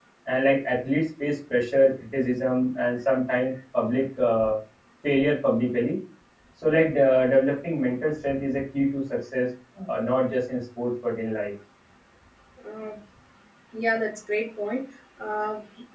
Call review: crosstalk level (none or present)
none